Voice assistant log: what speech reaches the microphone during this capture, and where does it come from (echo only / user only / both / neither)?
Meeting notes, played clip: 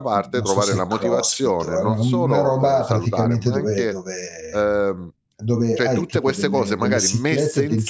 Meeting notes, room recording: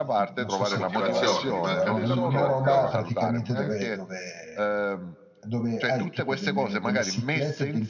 both